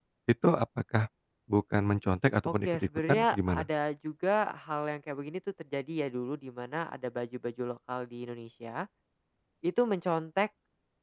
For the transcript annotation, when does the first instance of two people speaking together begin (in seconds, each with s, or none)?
2.5 s